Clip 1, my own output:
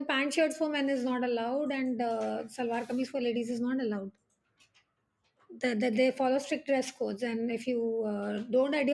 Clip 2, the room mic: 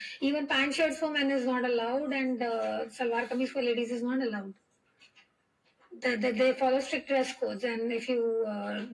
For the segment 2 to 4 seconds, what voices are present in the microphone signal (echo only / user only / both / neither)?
echo only